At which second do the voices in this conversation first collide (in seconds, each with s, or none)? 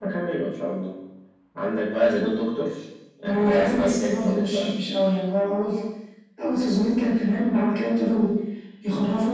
3.2 s